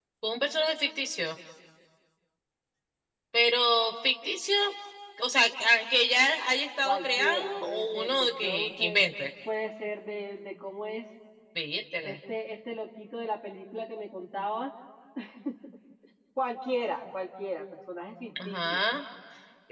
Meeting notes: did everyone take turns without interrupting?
No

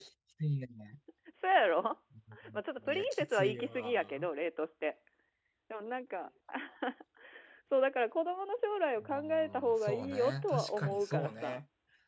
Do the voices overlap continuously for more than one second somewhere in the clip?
Yes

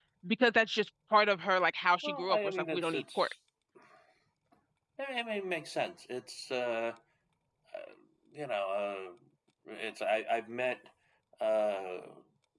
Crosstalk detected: Yes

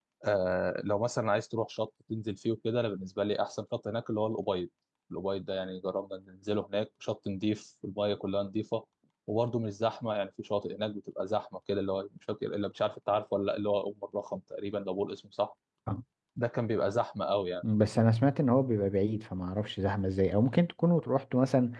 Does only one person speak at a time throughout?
Yes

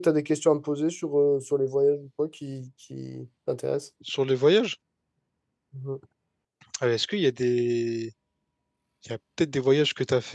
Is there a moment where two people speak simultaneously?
No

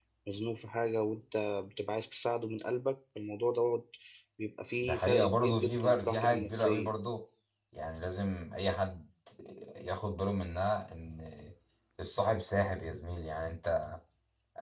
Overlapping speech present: Yes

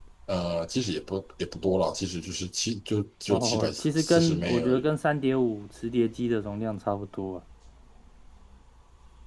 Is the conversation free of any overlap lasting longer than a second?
No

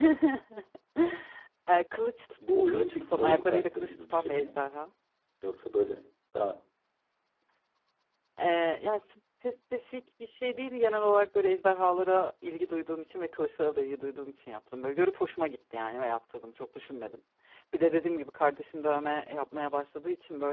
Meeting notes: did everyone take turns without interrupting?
No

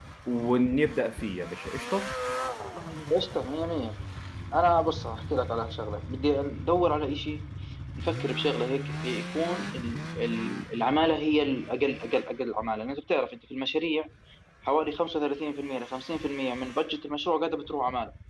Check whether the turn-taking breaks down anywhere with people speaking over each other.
No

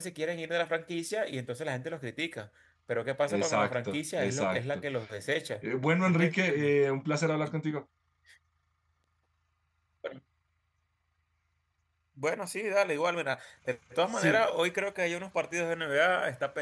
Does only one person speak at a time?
No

